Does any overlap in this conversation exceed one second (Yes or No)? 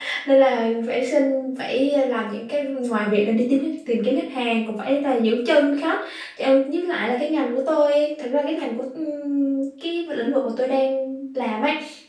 No